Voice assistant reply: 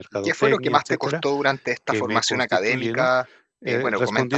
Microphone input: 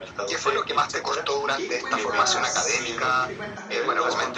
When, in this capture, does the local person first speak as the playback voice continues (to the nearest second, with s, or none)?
1 s